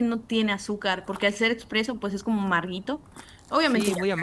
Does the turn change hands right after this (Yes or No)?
Yes